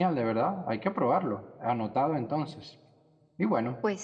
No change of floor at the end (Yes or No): Yes